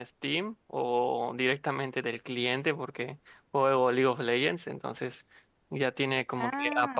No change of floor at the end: Yes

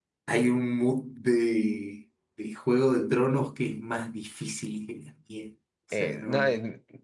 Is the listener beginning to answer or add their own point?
Yes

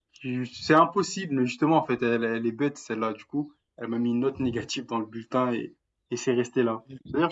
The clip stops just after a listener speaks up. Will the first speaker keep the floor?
Yes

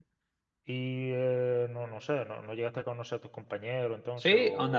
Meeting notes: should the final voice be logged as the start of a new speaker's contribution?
Yes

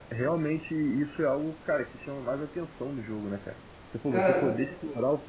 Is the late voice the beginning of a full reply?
No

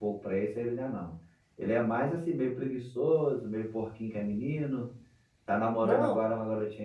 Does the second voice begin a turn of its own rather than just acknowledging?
No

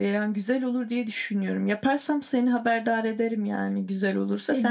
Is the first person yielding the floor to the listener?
Yes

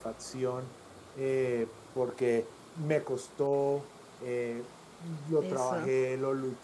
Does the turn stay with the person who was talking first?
Yes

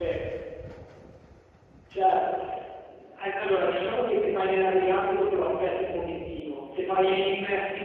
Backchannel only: Yes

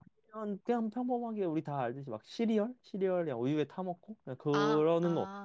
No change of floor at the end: No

